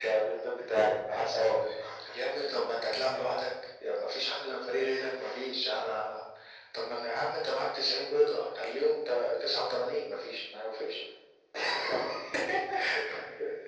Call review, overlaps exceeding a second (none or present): none